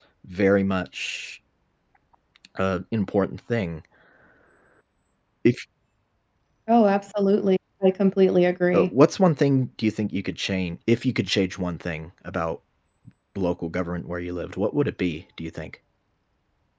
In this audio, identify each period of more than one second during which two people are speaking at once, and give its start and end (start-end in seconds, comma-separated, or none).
none